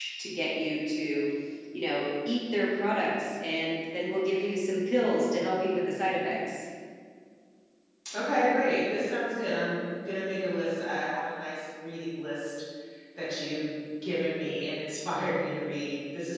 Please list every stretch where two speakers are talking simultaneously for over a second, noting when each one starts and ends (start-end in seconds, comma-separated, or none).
none